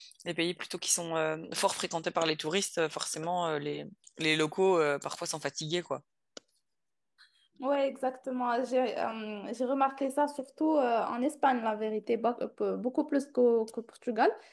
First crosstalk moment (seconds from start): none

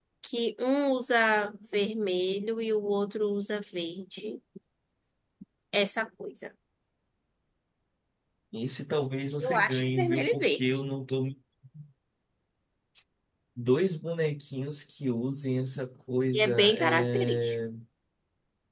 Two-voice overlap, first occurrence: 9.4 s

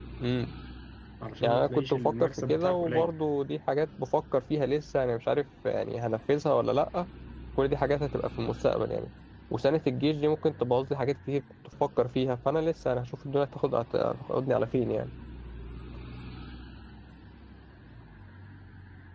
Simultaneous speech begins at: 1.4 s

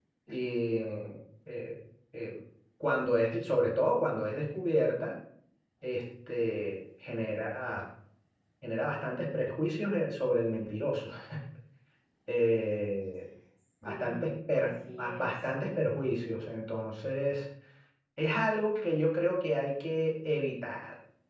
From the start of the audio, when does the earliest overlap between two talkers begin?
13.8 s

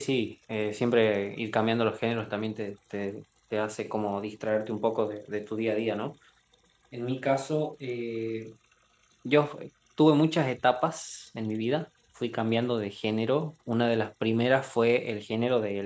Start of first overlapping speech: none

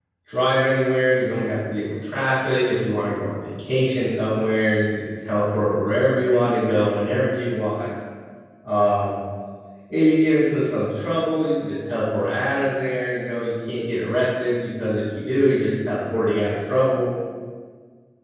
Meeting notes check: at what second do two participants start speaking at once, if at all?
none

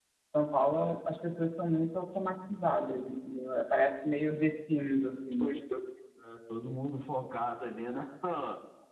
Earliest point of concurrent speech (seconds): none

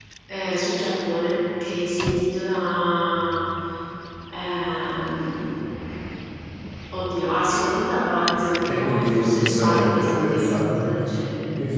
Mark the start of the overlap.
8.7 s

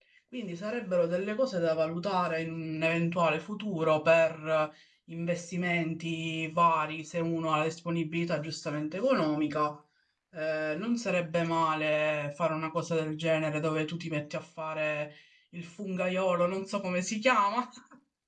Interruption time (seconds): none

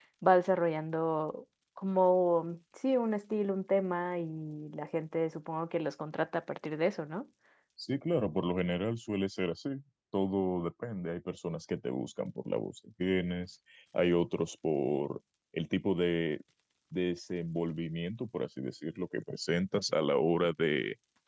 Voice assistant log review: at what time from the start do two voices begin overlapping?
none

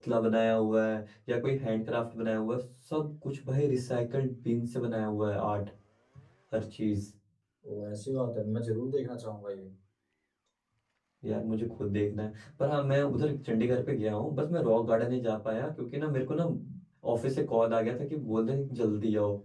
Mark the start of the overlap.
none

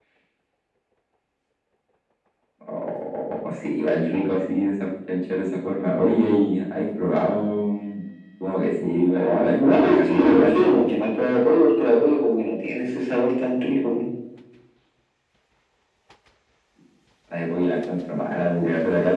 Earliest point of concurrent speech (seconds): 9.1 s

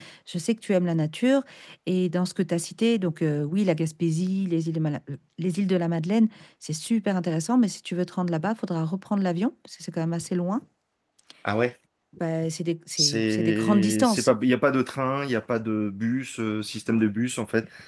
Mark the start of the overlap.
13.0 s

